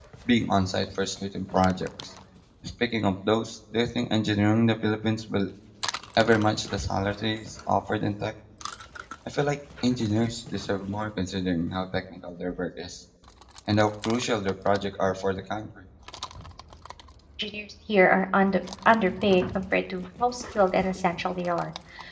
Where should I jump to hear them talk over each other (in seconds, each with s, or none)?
none